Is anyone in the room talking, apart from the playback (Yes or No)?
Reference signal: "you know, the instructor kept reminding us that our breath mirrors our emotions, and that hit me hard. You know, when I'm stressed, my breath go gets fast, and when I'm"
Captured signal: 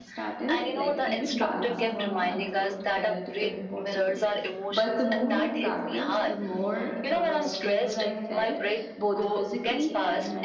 Yes